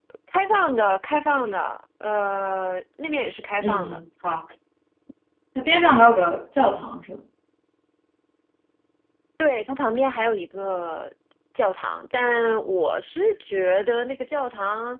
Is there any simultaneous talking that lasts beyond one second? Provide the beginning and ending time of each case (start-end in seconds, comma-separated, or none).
none